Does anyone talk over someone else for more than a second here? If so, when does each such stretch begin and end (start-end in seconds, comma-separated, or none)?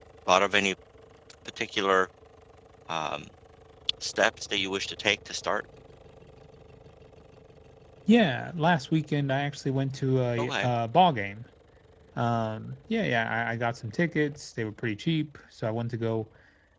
none